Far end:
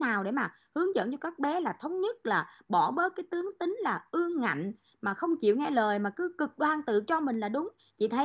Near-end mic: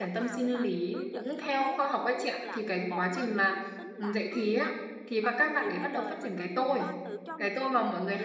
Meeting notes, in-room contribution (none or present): present